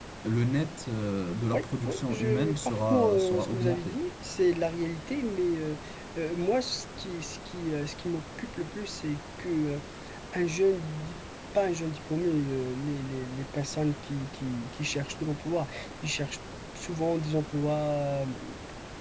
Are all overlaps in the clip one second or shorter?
No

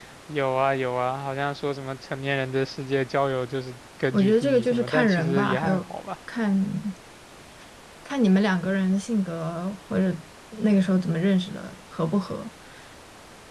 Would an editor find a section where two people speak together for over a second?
Yes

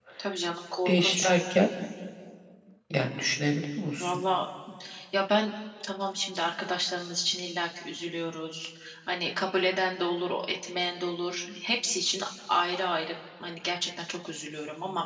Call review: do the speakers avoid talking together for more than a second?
Yes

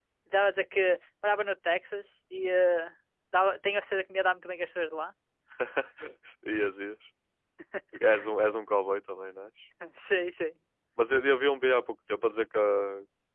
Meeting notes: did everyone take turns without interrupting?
Yes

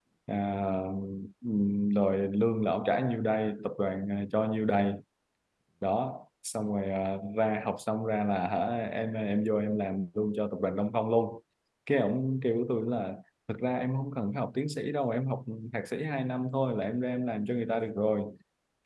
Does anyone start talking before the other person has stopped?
No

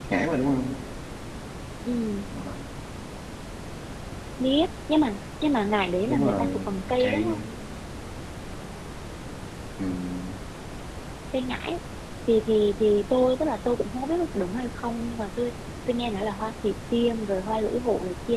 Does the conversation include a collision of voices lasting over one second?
Yes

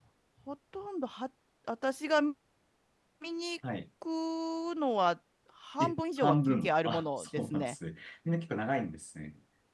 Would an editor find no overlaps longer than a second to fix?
No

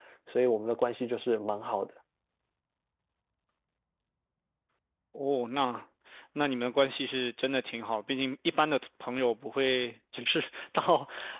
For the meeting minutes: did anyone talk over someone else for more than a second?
No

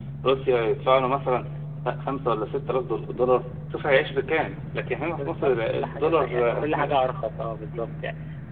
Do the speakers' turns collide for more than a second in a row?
Yes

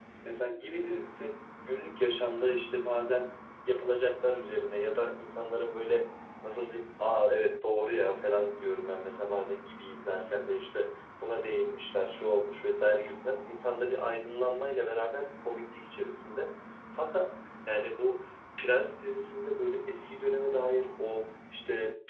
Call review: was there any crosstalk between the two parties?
No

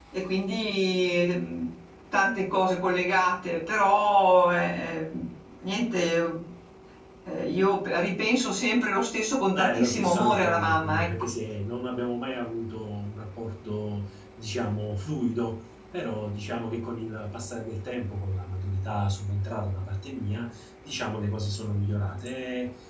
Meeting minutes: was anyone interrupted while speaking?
Yes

